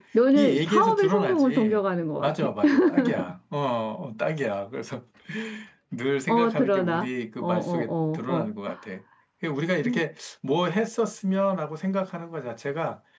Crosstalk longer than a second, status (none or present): present